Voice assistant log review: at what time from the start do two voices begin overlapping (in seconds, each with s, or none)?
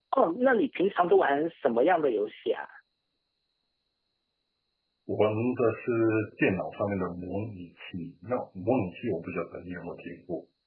none